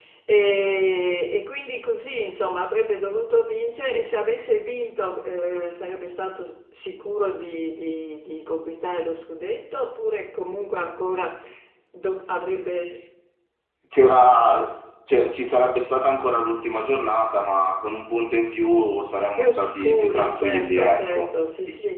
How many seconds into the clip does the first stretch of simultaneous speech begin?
19.4 s

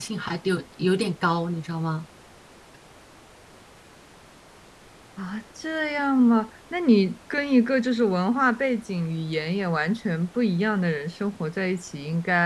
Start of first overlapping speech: none

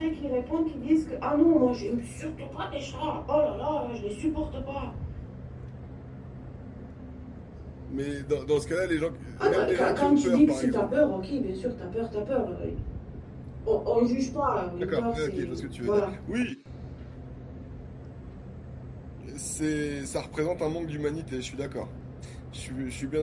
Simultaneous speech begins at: 9.4 s

